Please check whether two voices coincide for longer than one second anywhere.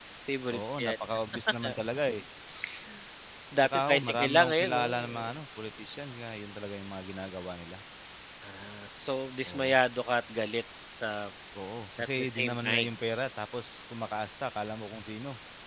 Yes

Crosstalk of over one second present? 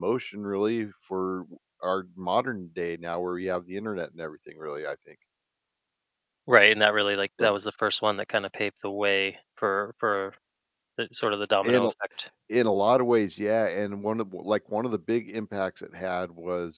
No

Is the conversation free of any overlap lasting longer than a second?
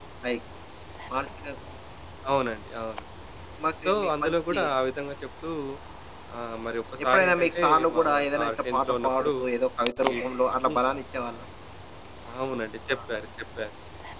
No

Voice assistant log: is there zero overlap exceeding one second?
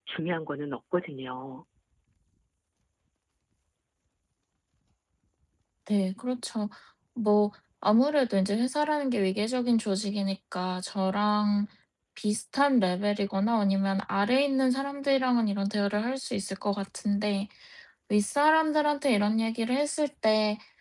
Yes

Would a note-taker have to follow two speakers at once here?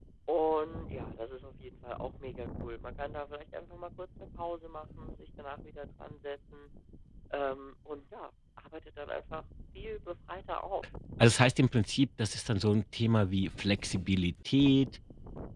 No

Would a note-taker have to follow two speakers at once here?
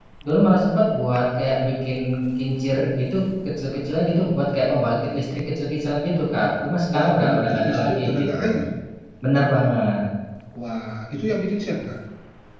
Yes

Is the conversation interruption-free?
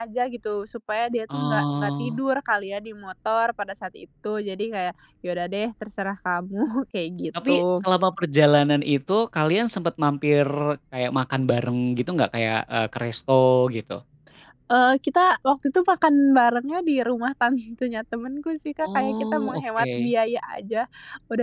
No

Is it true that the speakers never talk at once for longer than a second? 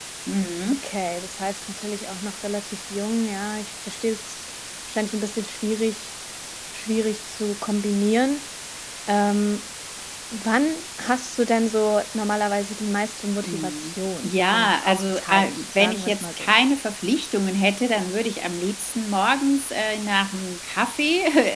No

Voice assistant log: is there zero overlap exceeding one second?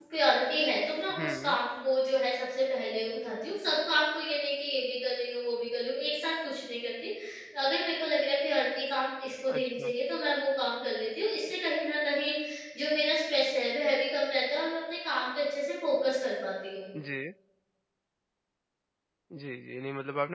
Yes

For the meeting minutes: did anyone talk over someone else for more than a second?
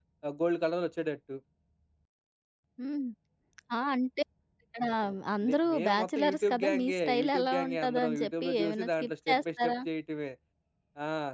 Yes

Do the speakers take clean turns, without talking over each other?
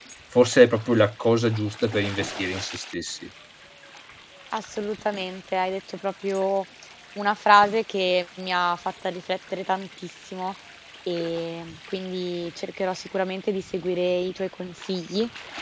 Yes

